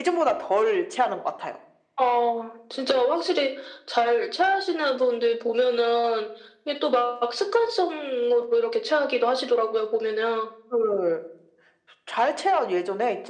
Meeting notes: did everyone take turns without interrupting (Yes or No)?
Yes